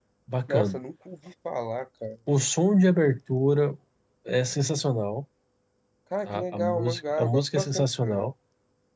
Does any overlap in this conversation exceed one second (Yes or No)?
Yes